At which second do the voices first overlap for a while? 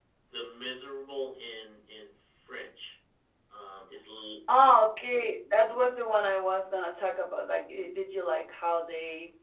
none

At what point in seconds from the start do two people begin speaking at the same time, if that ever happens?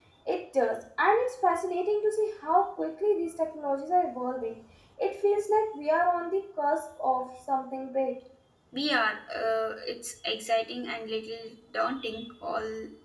none

